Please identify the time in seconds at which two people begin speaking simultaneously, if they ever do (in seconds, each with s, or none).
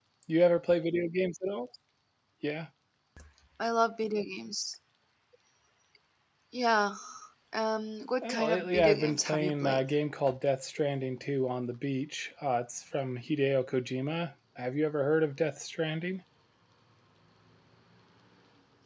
8.2 s